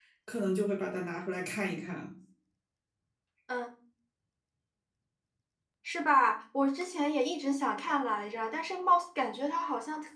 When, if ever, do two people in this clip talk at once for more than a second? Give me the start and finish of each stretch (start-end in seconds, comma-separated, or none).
none